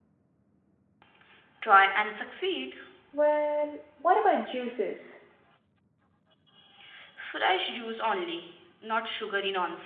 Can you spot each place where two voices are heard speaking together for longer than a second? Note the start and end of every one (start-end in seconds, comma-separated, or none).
none